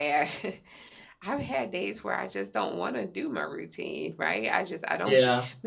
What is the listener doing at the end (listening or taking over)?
listening